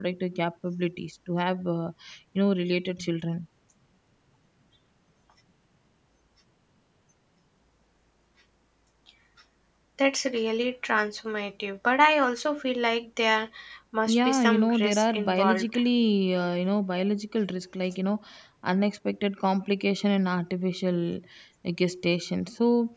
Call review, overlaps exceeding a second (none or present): present